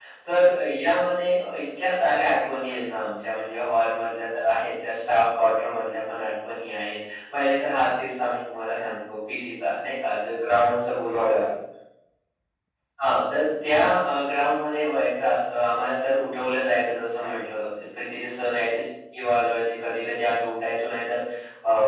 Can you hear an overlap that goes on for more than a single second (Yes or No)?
No